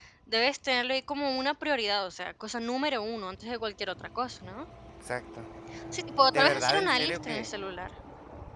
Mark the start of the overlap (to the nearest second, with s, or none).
6 s